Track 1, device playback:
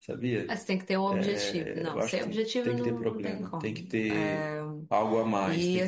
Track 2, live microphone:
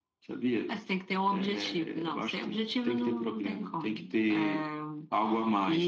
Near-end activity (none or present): none